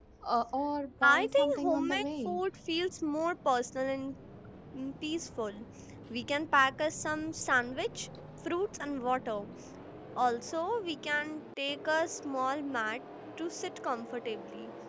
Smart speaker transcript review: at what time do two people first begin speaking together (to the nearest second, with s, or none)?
1 s